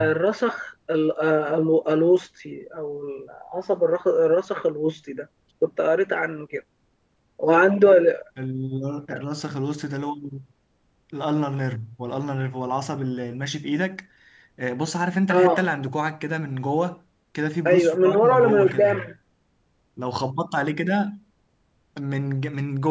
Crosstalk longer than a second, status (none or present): present